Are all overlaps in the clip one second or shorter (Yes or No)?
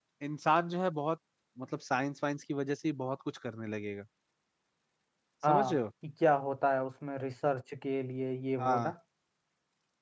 Yes